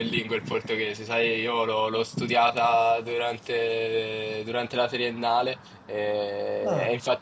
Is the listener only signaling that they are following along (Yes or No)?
Yes